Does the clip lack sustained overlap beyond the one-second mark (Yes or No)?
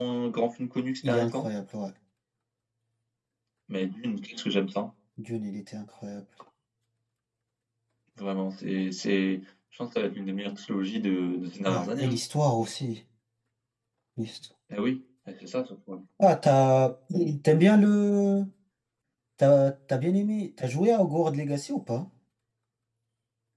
Yes